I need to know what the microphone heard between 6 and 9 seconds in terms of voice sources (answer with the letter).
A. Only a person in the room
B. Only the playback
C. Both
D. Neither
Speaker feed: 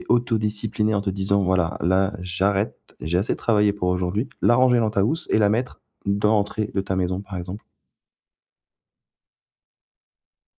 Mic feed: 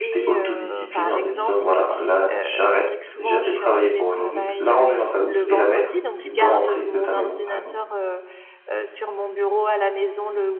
C